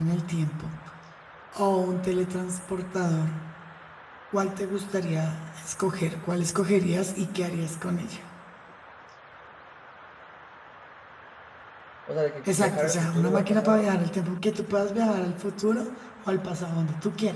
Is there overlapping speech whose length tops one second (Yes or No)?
Yes